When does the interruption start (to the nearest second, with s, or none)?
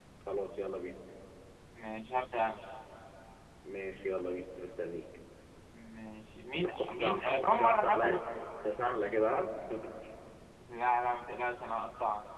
7 s